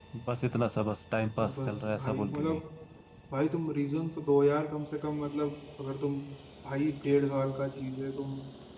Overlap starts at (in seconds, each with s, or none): 1.4 s